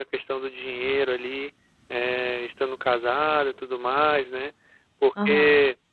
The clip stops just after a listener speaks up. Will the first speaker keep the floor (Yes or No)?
Yes